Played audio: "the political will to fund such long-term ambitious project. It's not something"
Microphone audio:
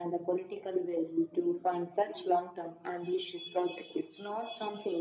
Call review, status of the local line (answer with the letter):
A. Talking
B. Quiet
B